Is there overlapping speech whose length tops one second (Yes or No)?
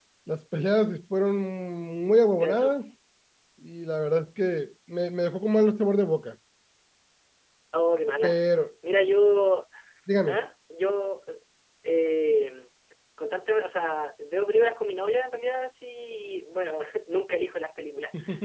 No